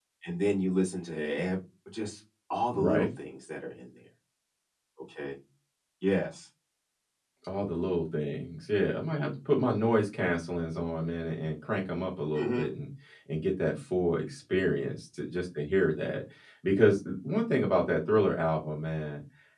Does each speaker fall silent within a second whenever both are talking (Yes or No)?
Yes